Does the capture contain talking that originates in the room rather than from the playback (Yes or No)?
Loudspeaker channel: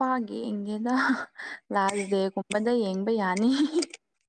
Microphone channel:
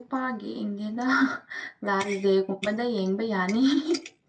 No